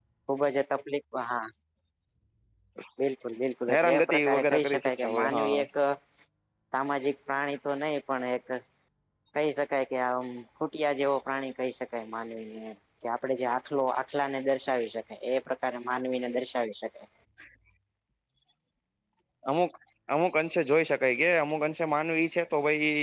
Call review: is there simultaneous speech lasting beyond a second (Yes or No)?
Yes